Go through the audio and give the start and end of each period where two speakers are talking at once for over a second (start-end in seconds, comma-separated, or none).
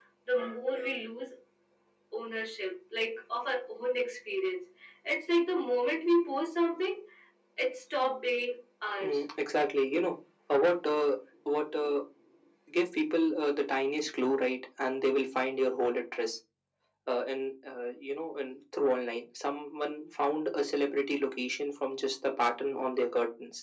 none